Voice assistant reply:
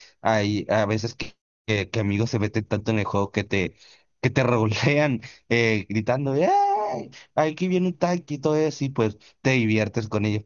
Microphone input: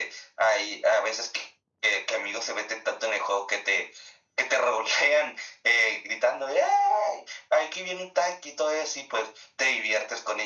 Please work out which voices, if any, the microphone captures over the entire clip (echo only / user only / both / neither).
echo only